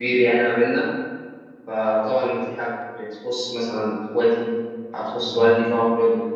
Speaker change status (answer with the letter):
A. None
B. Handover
A